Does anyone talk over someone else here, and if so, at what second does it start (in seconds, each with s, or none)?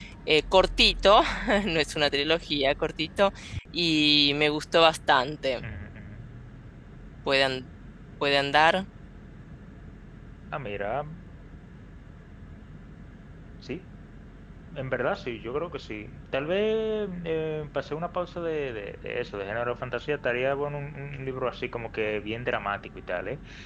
none